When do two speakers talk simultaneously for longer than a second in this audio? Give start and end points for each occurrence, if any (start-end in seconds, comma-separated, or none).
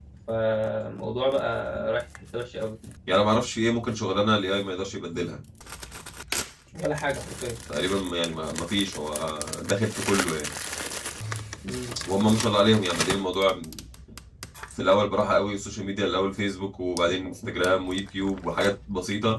none